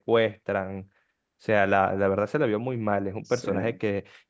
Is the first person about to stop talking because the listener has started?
No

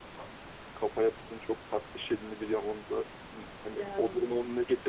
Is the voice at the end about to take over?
No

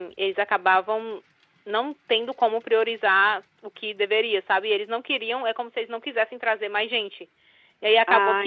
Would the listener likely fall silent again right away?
Yes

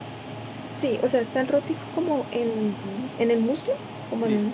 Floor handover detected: Yes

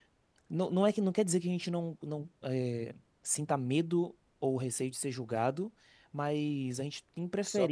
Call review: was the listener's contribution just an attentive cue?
Yes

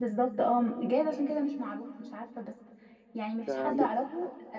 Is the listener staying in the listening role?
Yes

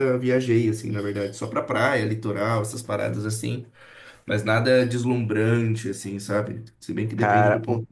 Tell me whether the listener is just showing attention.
No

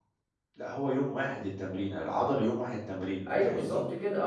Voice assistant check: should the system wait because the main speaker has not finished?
No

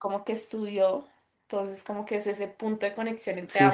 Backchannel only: No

